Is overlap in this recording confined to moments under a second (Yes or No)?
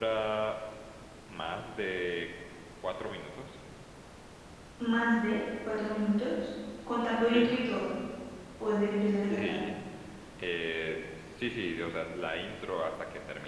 Yes